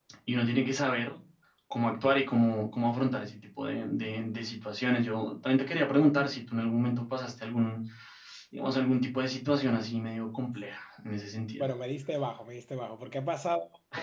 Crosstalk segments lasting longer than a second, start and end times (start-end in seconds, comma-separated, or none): none